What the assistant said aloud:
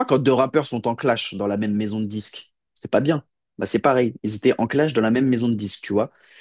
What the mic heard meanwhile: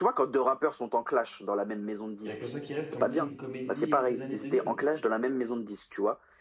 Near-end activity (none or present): present